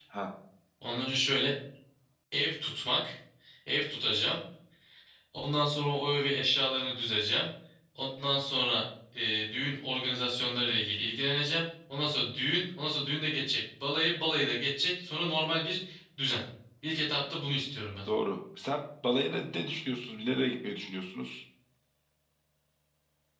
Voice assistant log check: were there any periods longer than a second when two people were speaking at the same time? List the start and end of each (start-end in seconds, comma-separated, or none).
none